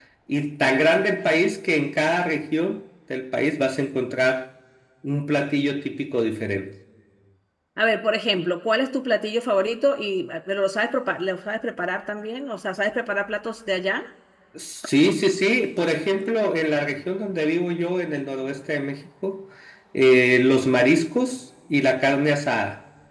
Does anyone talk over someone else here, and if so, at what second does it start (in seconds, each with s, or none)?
none